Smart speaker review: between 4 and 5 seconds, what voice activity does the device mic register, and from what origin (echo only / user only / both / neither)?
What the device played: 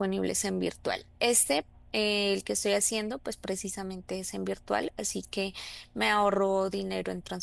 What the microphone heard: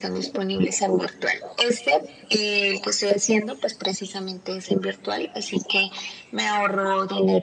echo only